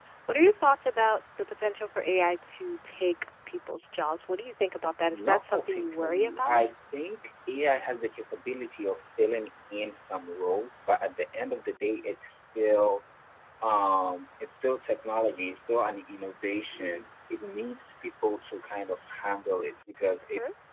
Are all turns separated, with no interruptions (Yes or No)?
No